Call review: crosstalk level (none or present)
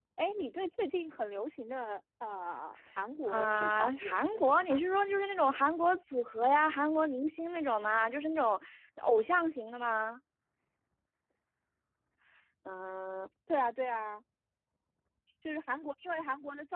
present